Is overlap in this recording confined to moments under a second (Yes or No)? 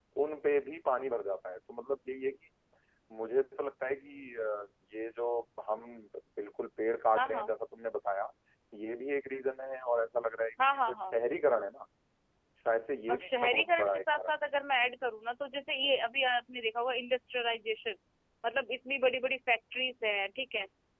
No